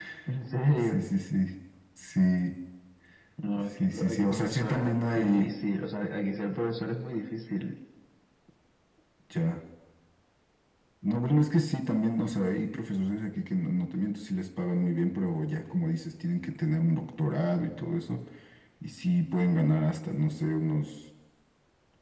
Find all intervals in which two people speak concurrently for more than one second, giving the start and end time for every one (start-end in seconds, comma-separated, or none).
3.8-5.5